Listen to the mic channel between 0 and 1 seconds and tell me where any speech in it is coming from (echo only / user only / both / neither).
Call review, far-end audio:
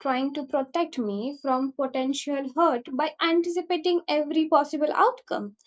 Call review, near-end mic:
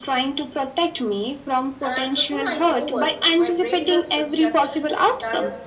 echo only